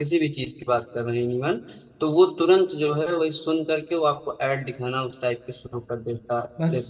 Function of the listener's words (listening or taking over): taking over